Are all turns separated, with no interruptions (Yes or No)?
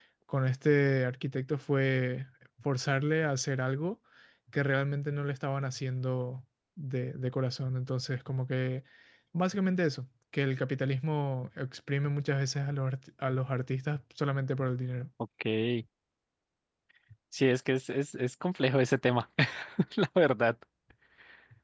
Yes